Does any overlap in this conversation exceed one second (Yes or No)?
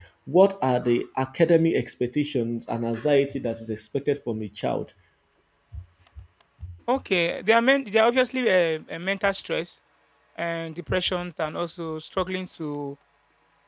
No